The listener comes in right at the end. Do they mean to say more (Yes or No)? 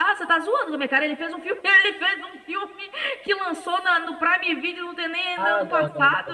Yes